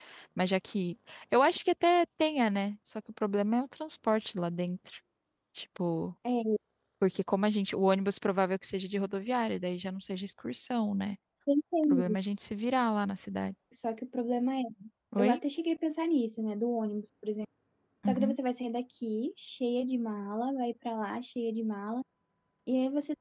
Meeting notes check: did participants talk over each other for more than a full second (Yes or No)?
No